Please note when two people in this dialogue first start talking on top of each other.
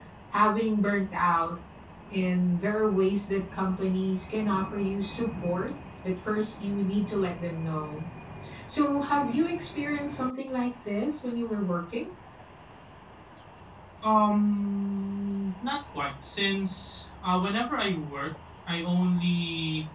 none

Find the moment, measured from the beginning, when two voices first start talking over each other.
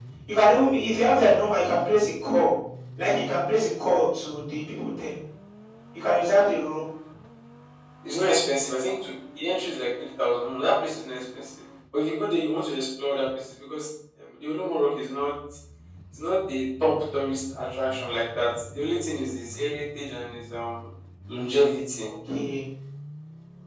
none

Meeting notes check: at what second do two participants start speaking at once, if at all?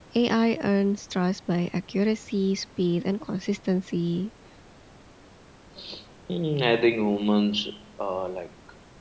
none

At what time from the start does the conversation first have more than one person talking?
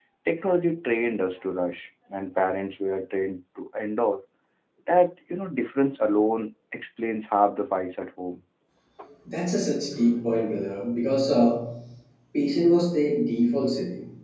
none

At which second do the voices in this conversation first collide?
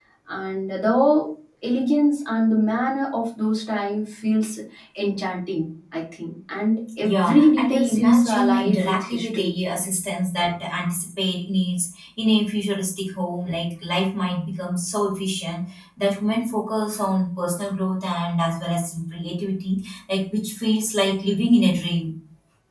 7 s

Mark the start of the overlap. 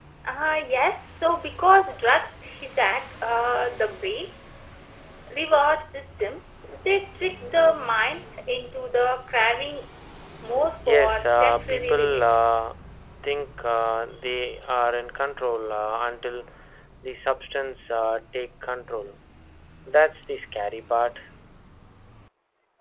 11 s

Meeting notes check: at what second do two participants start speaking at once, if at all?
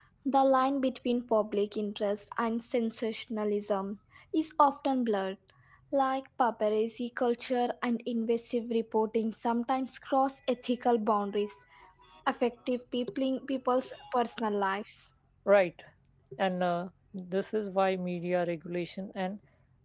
none

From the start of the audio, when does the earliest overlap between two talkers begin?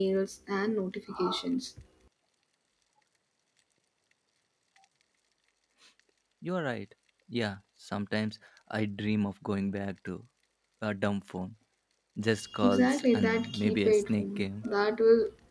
13 s

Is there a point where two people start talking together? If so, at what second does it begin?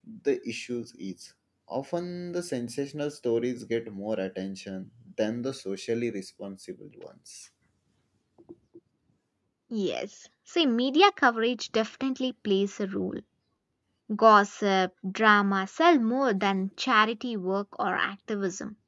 none

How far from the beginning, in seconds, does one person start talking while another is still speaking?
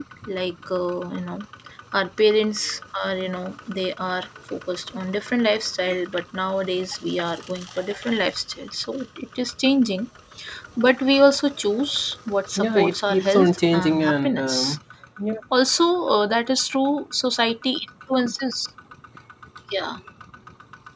13 s

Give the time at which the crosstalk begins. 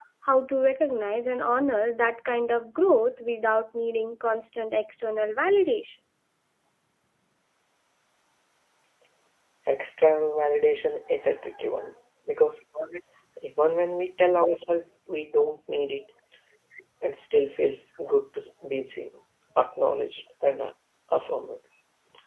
none

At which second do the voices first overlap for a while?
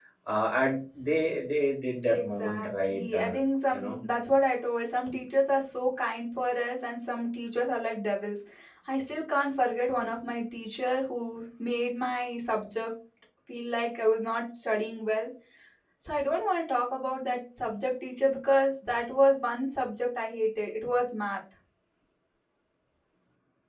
2 s

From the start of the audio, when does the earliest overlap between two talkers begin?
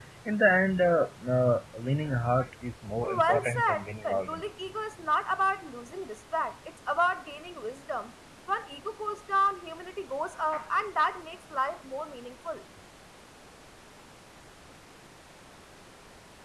3 s

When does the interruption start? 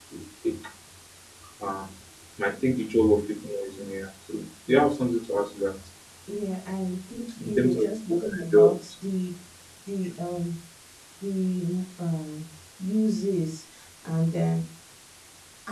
7 s

